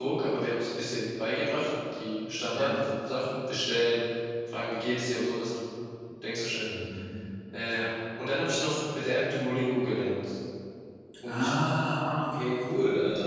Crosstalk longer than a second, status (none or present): none